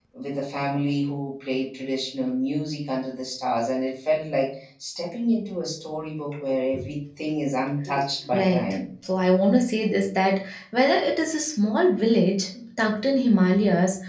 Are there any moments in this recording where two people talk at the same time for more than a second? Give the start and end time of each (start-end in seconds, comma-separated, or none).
none